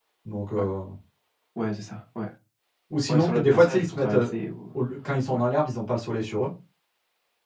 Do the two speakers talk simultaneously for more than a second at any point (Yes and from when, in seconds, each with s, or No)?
Yes, from 3.1 s